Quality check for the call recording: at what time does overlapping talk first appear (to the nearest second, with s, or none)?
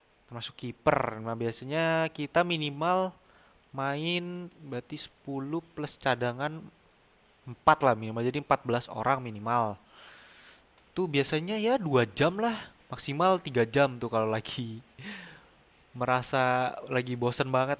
none